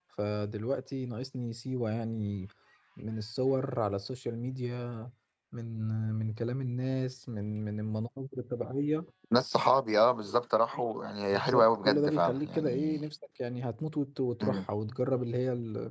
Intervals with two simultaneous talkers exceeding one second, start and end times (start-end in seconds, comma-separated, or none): 11.3-13.0